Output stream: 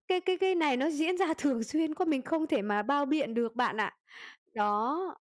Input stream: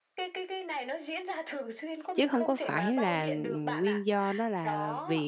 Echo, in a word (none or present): present